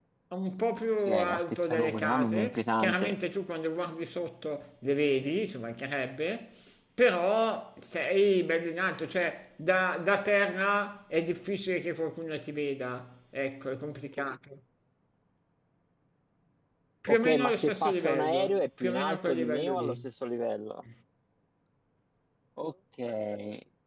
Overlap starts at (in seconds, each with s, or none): 1.1 s